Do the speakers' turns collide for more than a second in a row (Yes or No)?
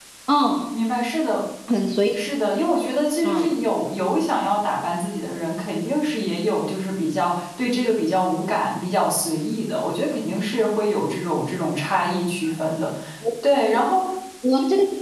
No